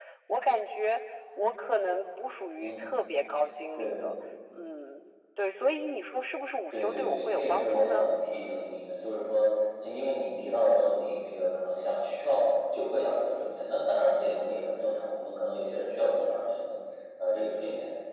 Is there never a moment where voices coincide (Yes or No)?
No